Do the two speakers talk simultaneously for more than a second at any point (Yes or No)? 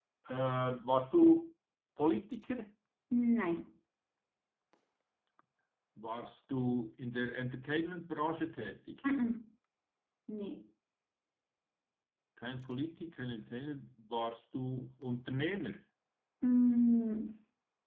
No